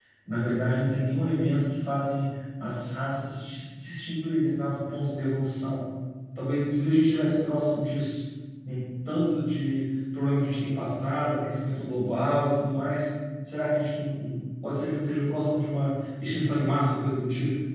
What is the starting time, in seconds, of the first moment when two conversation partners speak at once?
none

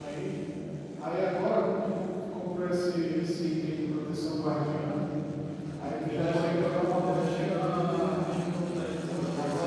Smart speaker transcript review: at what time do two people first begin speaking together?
6 s

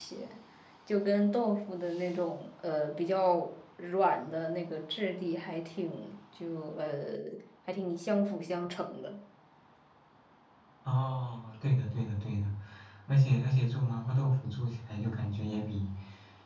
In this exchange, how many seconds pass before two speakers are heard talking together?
none

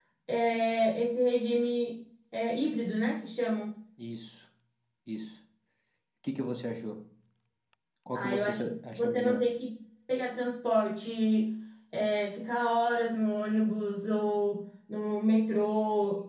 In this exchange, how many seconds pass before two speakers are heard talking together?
8 s

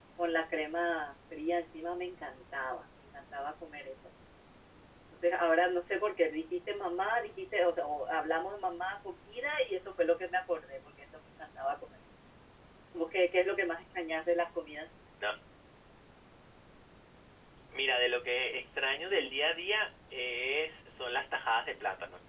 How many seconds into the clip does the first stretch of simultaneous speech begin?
none

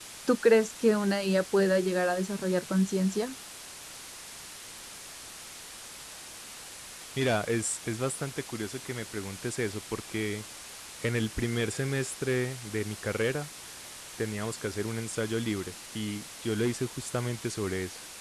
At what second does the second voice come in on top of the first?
none

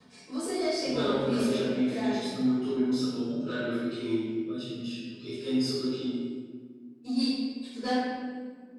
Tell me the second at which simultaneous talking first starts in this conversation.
1 s

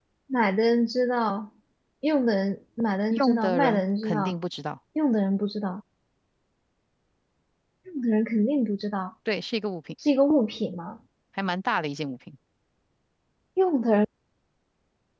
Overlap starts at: 3 s

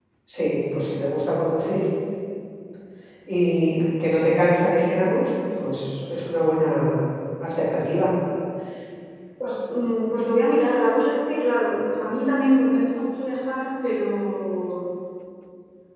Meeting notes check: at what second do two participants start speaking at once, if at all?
none

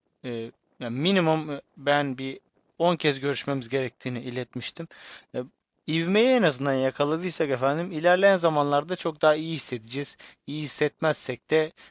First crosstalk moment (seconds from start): none

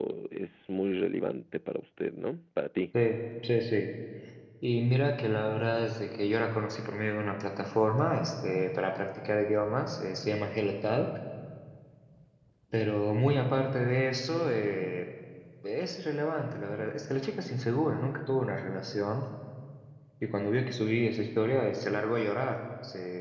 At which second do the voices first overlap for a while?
none

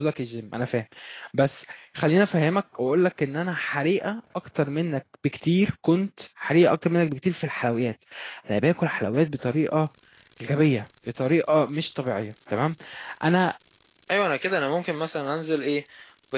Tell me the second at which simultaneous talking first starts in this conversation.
none

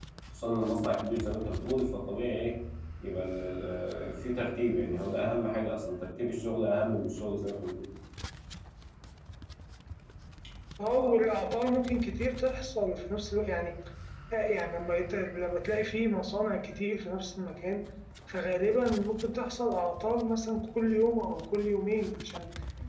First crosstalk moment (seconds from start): none

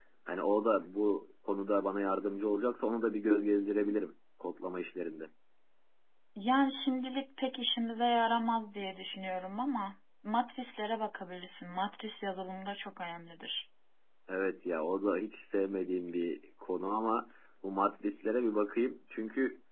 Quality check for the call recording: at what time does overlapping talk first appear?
none

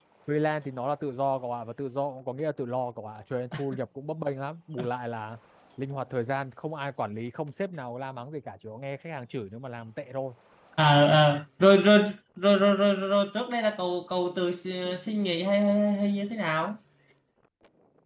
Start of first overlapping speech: none

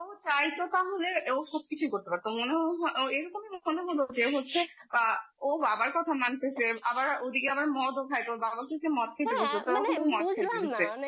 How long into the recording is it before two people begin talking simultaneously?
9 s

